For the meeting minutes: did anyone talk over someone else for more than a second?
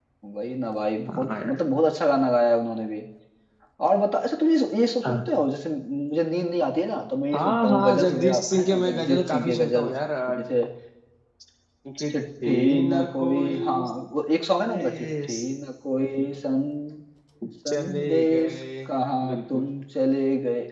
Yes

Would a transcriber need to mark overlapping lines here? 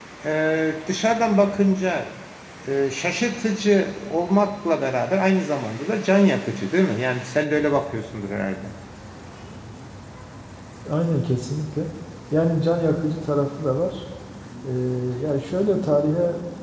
No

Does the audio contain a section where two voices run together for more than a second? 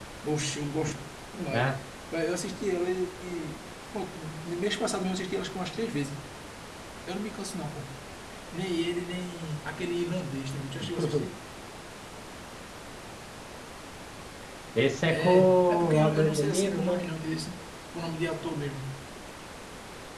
Yes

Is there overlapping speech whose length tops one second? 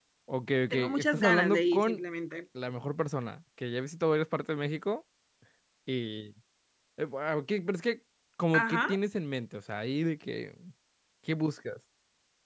Yes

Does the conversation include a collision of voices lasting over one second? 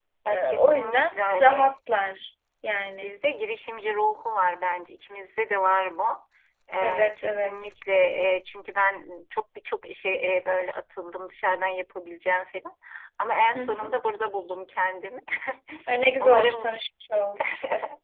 Yes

